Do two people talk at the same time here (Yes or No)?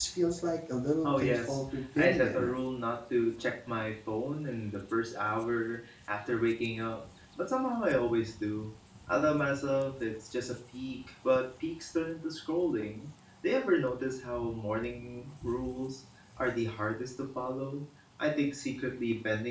Yes